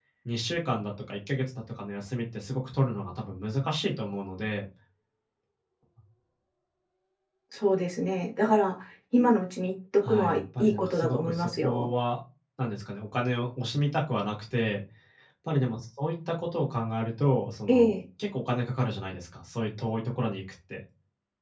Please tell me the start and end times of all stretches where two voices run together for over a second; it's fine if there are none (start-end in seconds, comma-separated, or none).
10.1-11.9